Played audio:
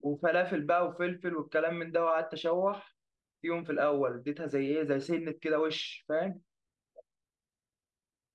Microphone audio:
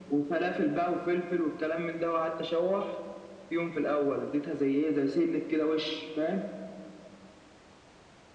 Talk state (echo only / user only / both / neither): echo only